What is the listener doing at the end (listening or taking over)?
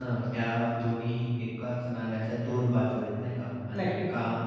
listening